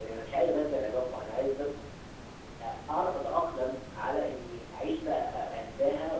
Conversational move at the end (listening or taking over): listening